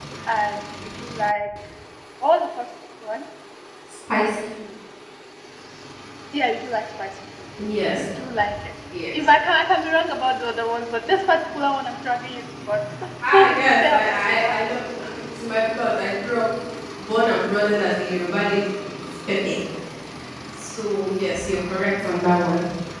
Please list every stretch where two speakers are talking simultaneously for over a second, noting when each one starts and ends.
13.3-14.6

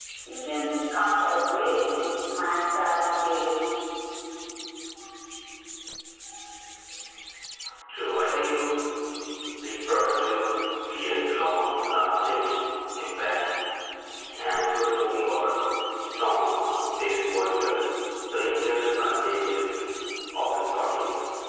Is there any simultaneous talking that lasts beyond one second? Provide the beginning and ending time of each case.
none

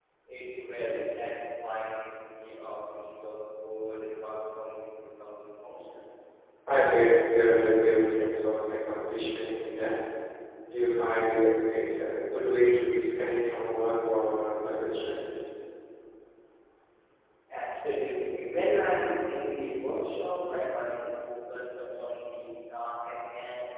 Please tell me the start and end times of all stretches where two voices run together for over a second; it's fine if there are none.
none

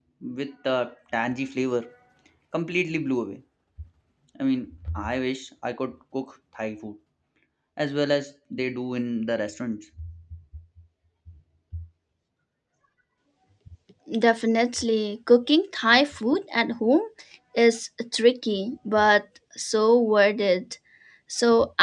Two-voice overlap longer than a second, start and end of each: none

